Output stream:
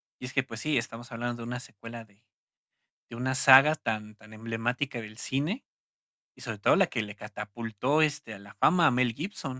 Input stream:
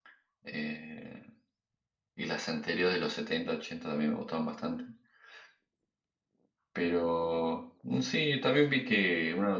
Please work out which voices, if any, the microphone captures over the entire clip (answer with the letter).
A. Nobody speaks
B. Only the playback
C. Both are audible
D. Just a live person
D